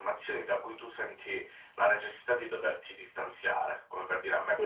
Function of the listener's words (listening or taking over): listening